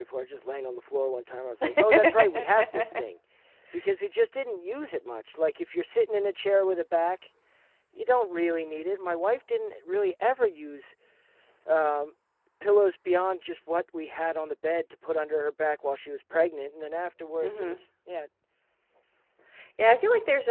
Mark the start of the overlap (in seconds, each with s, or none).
1.6 s